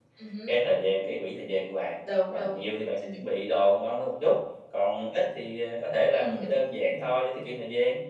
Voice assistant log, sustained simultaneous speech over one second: none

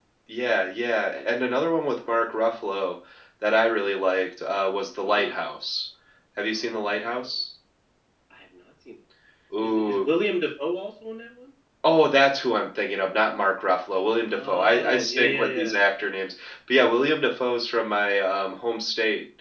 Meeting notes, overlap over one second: present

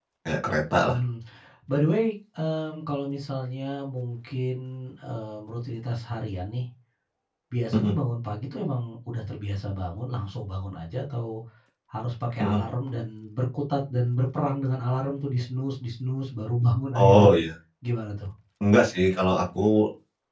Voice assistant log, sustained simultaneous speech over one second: none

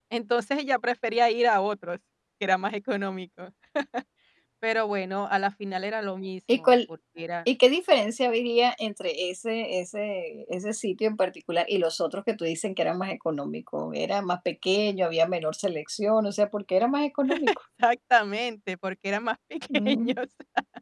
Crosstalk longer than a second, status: none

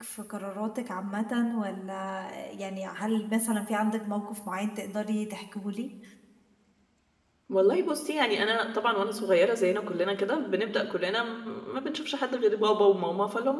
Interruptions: none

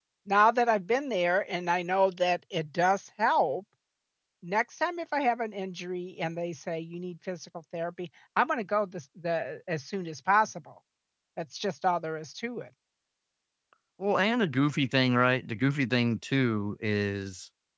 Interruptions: none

